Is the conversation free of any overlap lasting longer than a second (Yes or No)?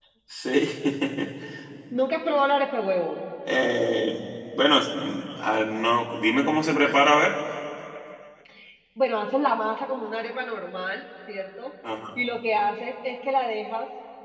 Yes